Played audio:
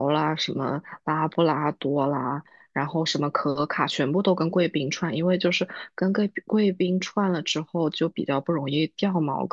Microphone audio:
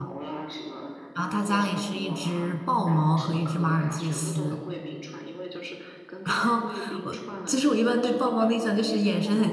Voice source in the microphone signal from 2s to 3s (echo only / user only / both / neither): both